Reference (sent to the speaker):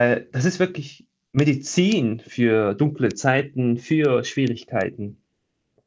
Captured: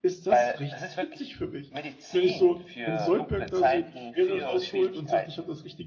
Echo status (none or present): present